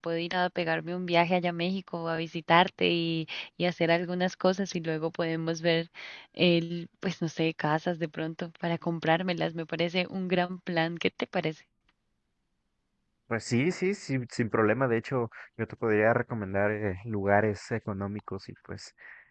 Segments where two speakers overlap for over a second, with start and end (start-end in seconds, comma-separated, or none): none